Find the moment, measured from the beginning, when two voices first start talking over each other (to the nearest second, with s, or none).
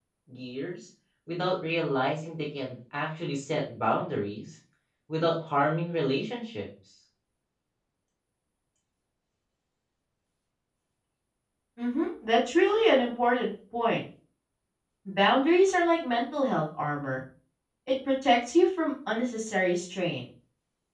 none